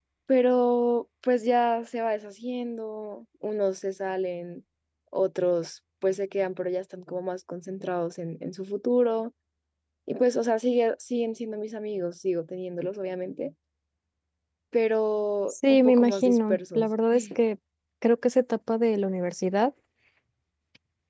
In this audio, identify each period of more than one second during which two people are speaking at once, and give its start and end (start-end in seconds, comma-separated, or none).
15.5-16.9